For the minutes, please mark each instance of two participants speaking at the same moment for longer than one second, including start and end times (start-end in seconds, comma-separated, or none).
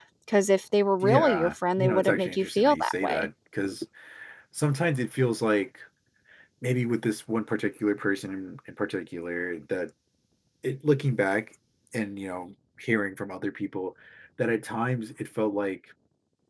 1.0-3.3